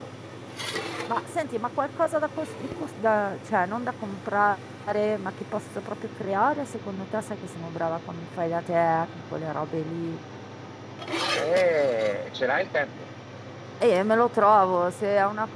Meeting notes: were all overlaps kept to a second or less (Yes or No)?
Yes